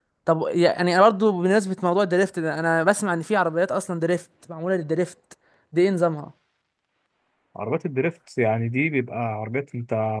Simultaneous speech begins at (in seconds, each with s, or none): none